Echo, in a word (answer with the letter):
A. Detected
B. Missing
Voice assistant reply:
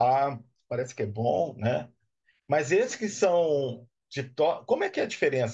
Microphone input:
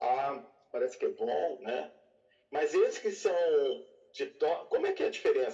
A